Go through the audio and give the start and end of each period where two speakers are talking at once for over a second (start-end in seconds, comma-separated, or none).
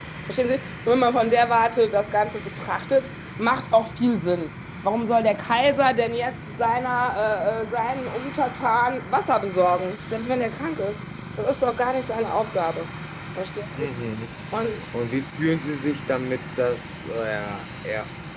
none